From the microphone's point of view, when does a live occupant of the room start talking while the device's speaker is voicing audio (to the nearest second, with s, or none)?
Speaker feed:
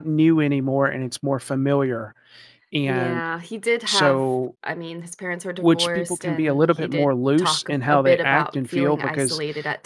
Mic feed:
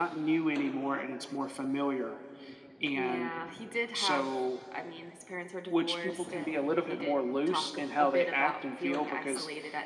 none